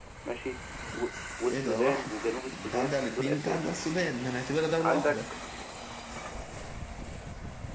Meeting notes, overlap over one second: present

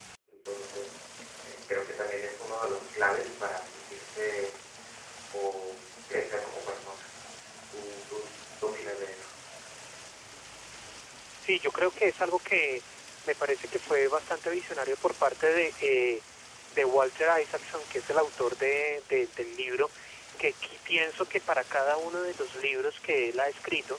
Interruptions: none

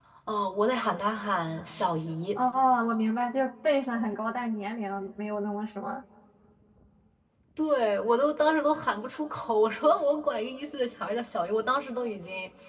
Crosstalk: none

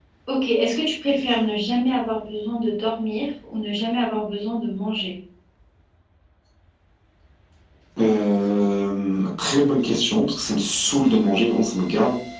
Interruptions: none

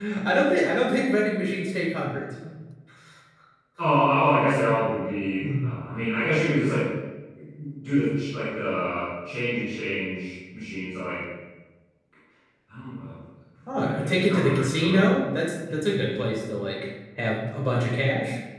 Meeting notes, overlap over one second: present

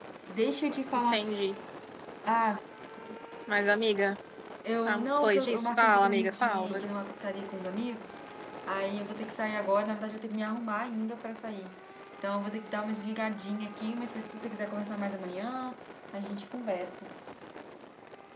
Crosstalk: present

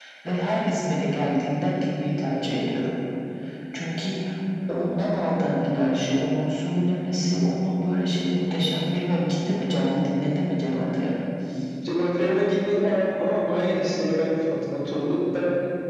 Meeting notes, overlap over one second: none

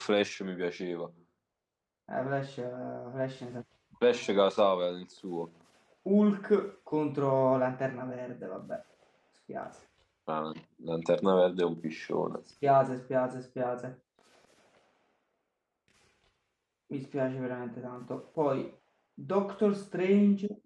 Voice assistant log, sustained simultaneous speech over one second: none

